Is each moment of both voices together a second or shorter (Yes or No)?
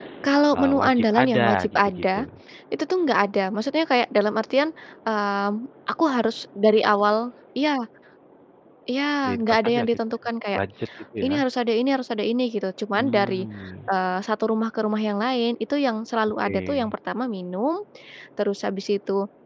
No